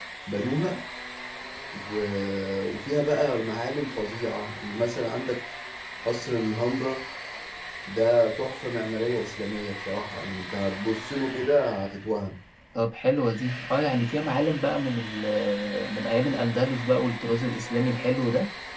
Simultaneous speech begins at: none

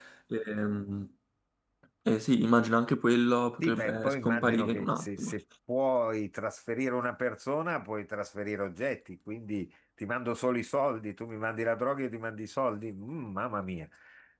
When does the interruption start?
4 s

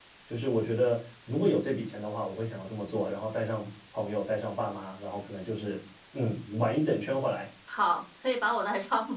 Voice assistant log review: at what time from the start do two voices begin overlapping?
none

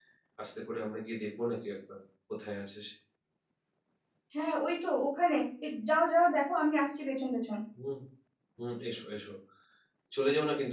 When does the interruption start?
none

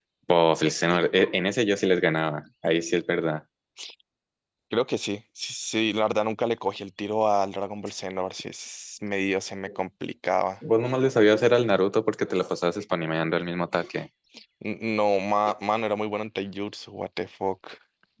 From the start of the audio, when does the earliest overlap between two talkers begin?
none

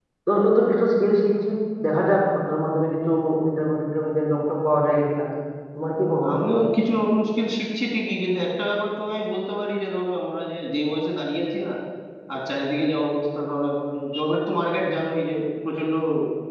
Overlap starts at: none

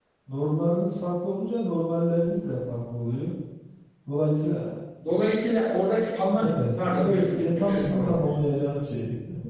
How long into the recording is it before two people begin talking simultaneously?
6 s

